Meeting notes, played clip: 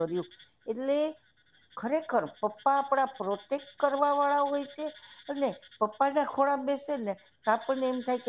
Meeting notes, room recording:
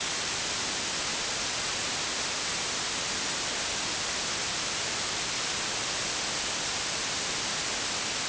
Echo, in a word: none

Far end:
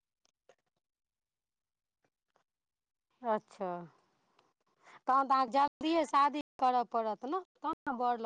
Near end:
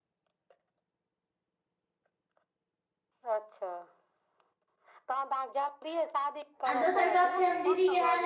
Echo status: present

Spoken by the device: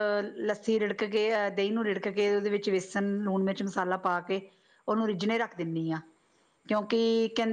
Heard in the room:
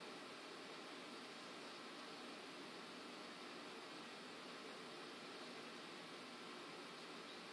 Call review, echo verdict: none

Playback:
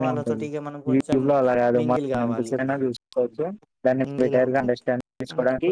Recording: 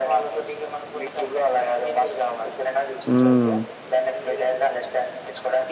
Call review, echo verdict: present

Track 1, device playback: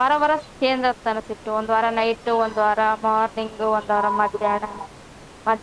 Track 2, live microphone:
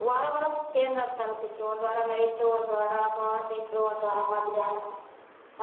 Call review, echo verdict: present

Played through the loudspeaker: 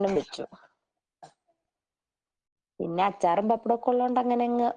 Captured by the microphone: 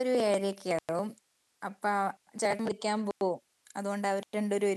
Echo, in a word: none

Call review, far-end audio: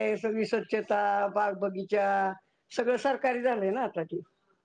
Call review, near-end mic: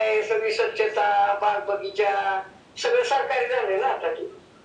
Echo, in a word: present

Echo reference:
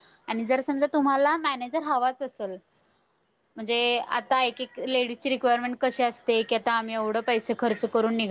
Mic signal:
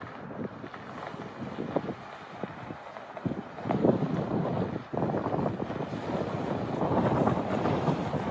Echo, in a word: none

